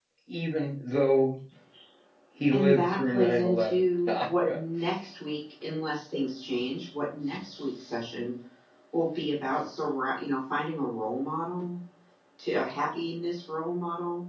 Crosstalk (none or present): present